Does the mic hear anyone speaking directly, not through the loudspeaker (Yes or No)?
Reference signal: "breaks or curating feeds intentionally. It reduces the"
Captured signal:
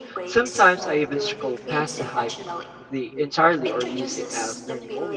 Yes